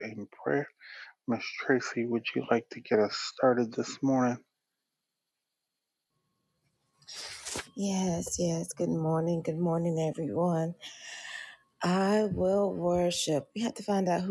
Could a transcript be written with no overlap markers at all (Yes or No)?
Yes